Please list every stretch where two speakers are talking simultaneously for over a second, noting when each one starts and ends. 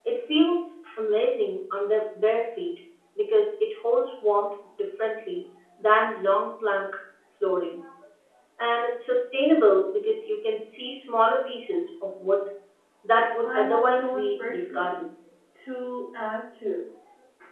13.4-14.9

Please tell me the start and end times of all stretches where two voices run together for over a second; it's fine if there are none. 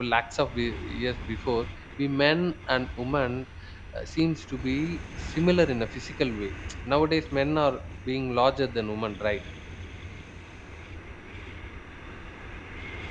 none

